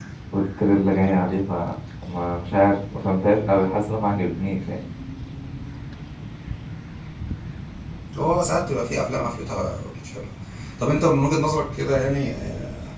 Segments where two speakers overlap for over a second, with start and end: none

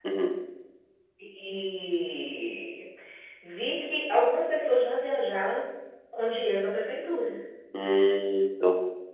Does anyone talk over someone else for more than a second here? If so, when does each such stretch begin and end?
none

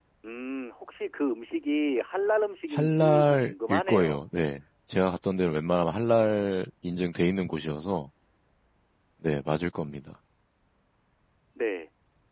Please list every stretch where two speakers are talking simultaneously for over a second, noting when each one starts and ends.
2.7-4.2

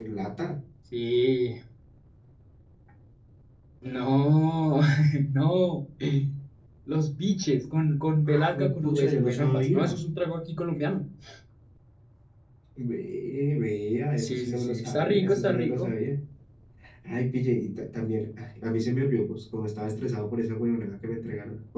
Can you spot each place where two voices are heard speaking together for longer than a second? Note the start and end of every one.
8.3-10.0, 14.2-15.9

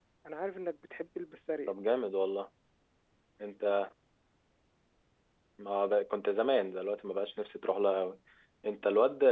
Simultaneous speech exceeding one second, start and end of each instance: none

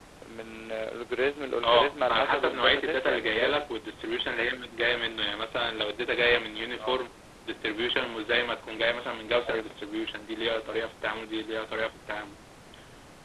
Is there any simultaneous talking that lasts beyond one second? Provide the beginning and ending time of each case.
1.6-3.6

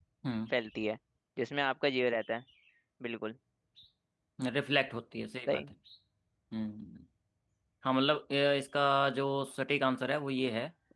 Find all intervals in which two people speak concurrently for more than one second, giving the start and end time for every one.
none

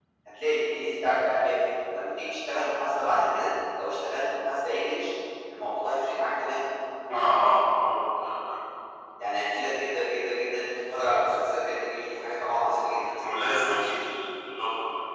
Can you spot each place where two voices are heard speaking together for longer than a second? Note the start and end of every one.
none

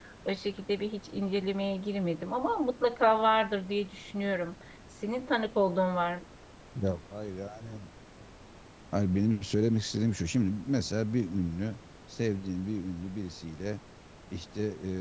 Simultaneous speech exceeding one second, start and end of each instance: none

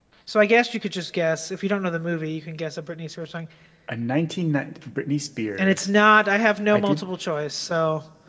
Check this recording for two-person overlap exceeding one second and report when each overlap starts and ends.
none

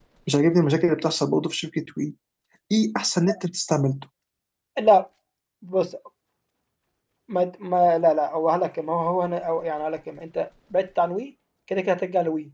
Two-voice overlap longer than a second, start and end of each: none

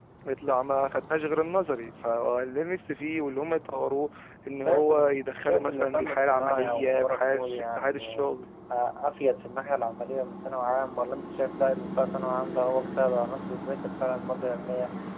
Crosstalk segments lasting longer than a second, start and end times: 4.6-8.3

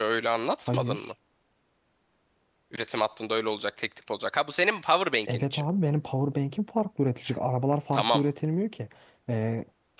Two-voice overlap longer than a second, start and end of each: none

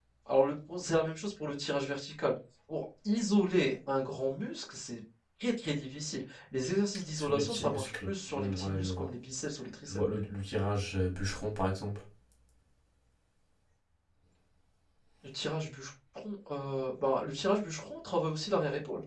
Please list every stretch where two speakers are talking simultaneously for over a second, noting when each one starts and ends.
7.2-9.1

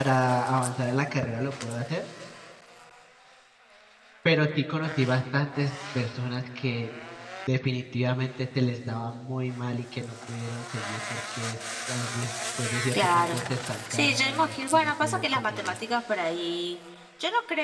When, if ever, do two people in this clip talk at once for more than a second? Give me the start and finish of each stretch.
13.9-15.8

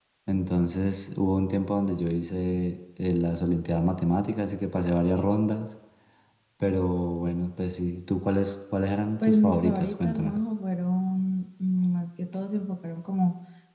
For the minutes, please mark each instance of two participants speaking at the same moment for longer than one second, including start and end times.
9.2-10.4

